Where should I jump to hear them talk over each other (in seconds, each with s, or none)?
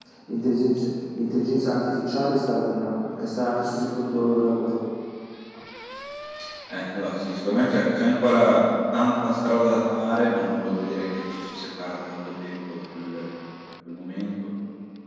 none